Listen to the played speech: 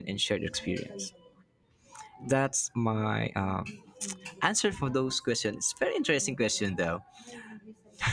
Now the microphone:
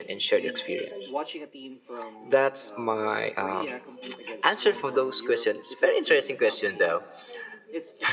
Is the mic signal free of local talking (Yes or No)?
No